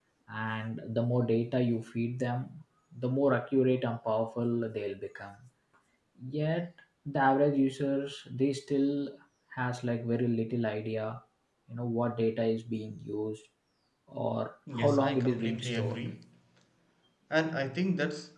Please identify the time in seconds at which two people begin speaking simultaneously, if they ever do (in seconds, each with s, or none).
14.7 s